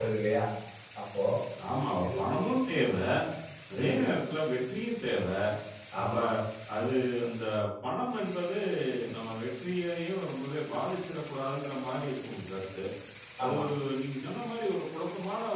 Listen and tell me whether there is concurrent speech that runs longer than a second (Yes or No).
No